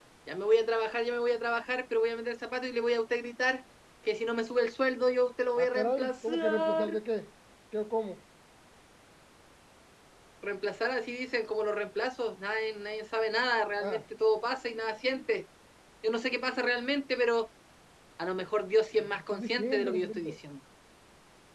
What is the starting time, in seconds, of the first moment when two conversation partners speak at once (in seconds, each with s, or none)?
5.6 s